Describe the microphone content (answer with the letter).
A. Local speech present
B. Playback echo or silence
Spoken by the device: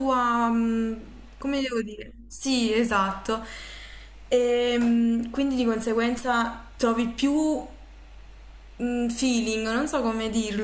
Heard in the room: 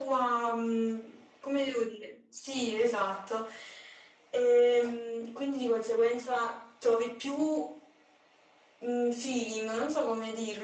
B